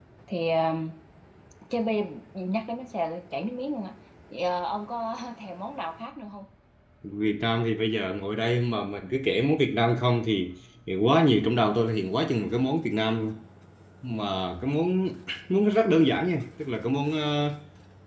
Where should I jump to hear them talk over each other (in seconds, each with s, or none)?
none